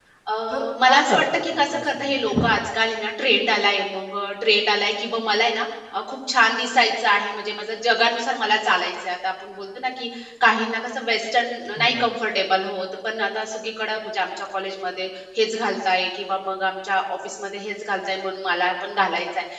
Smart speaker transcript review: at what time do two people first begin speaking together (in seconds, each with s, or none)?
0.5 s